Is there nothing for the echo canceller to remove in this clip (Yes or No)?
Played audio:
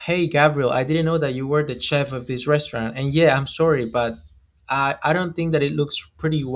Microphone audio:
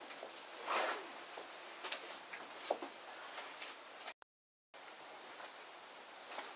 Yes